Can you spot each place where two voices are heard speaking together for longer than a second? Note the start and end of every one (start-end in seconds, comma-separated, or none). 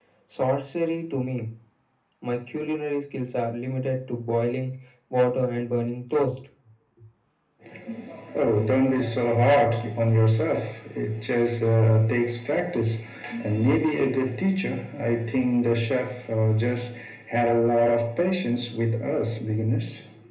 none